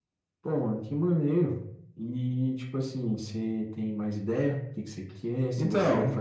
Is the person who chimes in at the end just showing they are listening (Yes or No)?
Yes